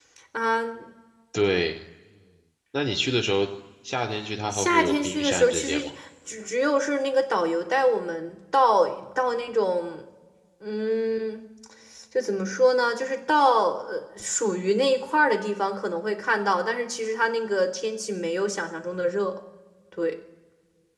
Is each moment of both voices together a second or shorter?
No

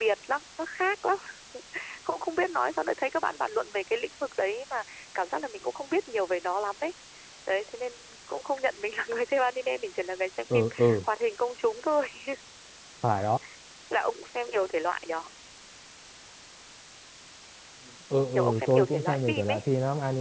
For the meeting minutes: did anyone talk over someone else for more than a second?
Yes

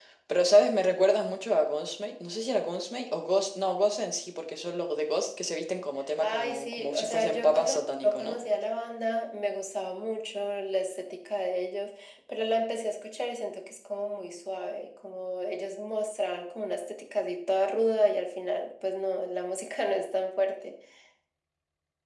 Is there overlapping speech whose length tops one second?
Yes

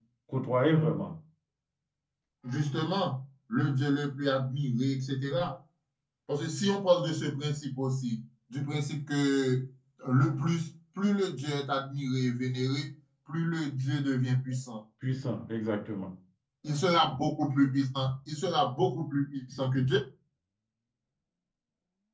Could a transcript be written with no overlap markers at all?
Yes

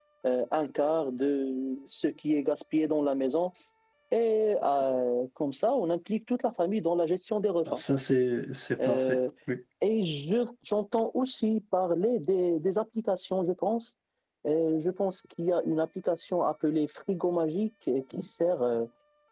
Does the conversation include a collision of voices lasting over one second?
No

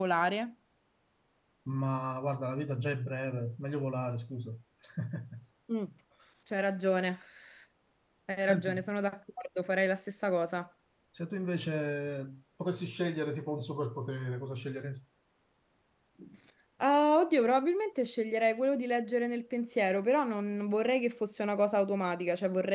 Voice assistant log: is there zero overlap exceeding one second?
Yes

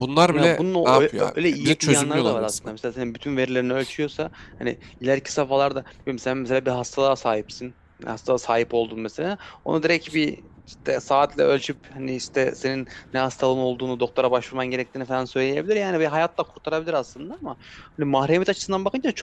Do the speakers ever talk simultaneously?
Yes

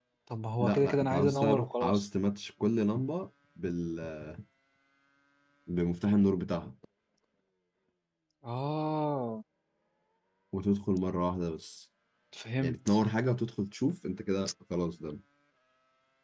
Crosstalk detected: Yes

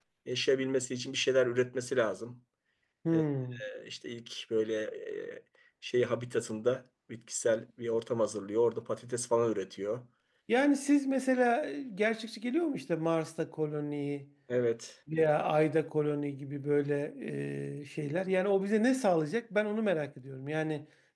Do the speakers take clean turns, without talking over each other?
Yes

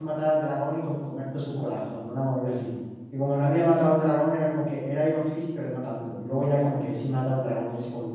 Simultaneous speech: No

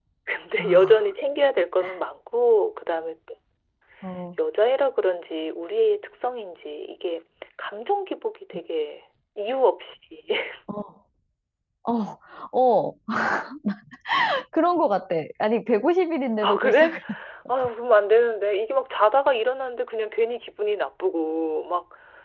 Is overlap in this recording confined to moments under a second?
Yes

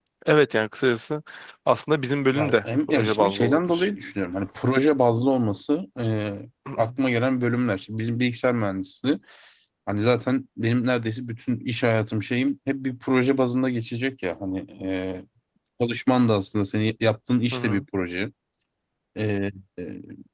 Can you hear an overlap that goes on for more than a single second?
Yes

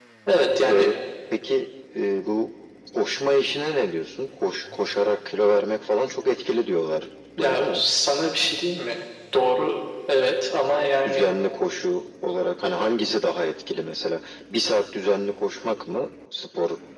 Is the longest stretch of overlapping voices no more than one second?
Yes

